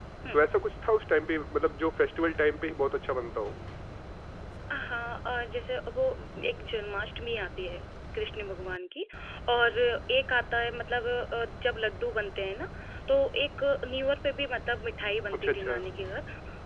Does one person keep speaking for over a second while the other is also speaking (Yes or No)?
No